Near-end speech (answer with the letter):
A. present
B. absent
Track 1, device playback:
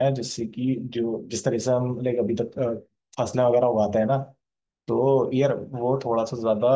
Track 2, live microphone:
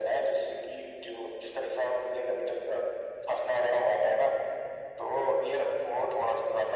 B